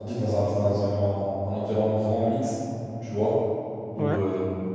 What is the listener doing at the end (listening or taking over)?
listening